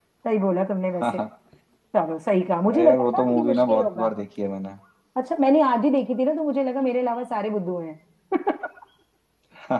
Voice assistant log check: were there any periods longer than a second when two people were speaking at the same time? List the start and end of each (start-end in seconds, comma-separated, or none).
2.7-4.0